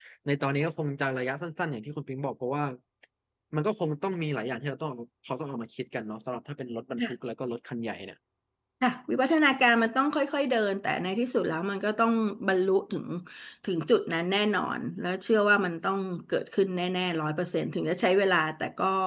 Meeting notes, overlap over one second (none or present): none